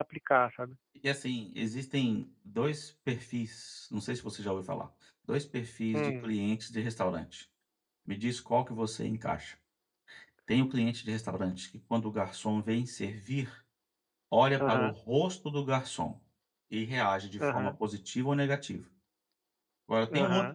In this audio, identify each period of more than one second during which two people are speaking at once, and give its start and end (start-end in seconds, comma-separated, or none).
none